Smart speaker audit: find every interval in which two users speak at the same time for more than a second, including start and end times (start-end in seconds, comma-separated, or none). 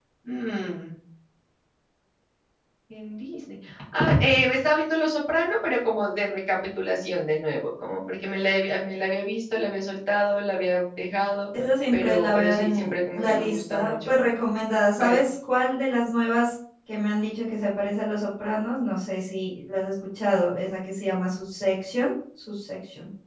11.9-14.2